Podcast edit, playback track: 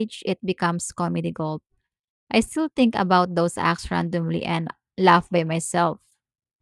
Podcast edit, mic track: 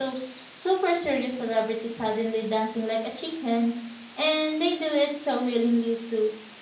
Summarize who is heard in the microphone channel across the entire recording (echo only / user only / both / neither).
user only